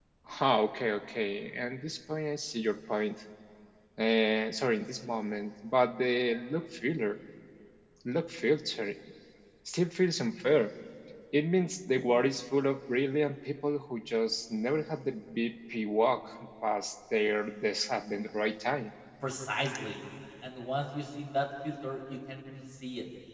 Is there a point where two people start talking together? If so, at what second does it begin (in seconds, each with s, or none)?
none